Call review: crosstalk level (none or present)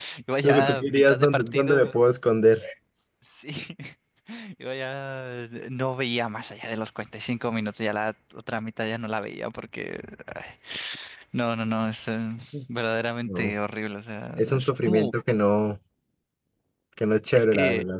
present